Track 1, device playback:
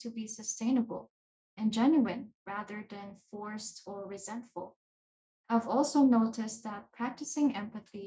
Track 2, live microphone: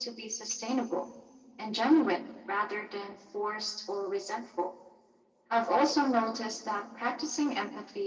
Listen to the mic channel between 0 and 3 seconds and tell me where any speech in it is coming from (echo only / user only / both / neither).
echo only